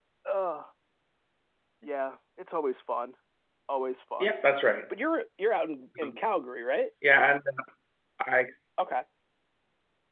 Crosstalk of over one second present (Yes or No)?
No